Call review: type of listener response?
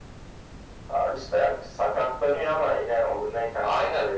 taking over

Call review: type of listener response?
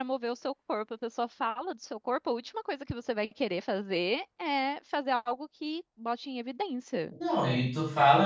taking over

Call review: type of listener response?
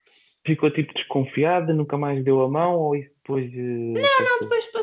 taking over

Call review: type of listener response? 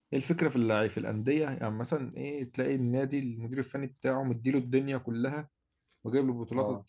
listening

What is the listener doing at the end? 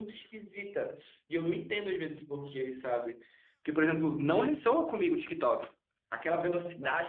listening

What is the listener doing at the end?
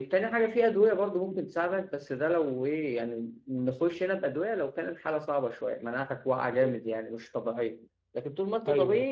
listening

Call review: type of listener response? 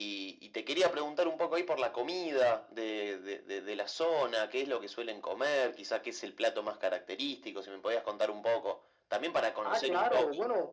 taking over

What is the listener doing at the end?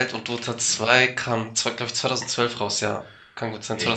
taking over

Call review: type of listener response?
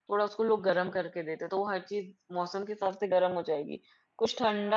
listening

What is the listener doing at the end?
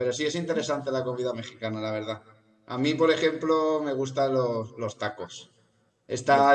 listening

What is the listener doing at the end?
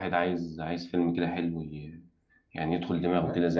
taking over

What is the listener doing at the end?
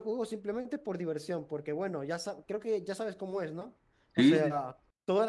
listening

